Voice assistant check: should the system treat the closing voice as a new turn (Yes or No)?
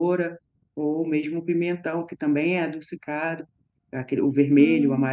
No